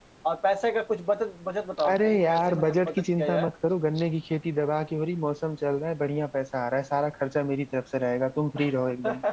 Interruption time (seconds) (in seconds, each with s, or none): 1.9 s